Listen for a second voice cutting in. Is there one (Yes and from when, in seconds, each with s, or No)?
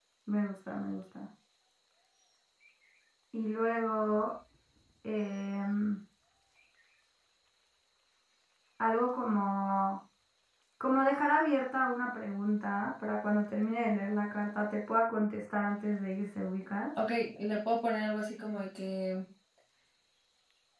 No